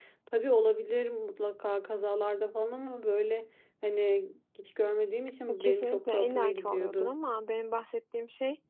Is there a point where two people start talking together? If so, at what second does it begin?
5 s

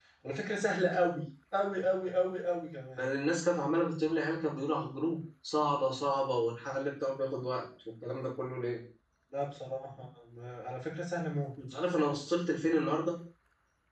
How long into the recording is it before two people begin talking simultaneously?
none

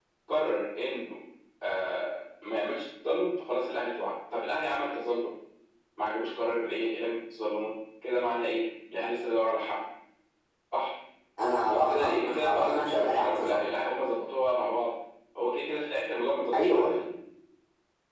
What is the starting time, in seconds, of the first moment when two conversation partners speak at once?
12 s

